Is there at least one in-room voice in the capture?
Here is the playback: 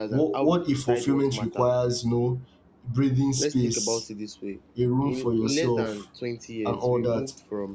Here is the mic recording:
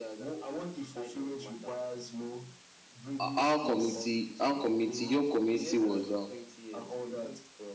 Yes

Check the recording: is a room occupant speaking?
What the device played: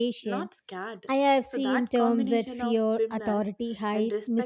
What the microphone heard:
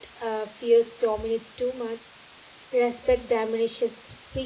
Yes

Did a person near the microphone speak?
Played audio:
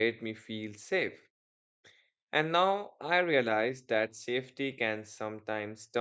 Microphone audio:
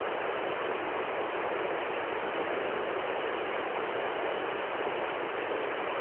No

